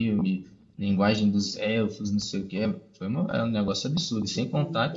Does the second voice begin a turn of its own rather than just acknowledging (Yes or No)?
No